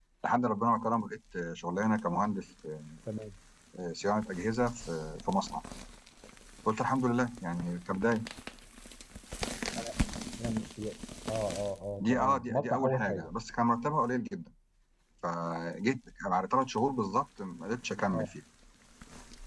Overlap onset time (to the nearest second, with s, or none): 12 s